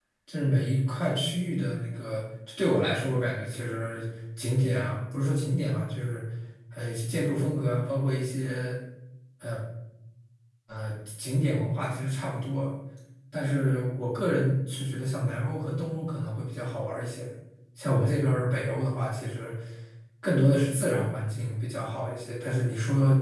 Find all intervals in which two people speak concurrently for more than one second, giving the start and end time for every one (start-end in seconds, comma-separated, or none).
none